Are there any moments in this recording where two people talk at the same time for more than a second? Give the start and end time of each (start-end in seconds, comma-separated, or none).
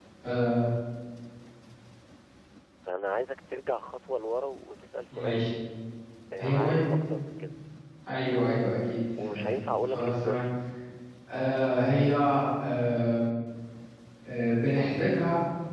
9.2-10.4